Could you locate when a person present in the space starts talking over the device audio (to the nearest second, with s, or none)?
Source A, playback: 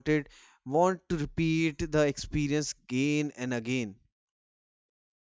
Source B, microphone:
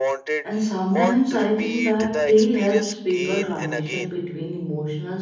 0 s